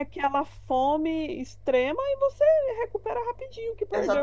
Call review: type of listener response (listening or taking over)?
taking over